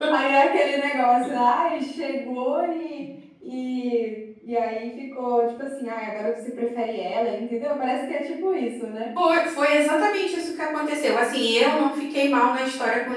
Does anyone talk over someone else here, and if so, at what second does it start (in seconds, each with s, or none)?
none